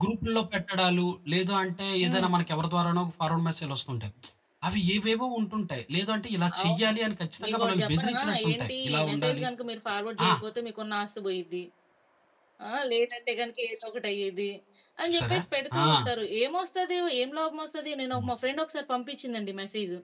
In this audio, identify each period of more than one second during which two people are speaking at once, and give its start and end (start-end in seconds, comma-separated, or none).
7.4-9.4